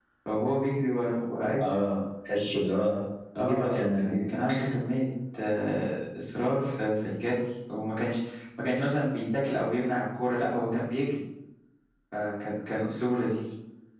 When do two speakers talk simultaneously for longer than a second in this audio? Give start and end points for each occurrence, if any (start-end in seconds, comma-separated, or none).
3.4-4.6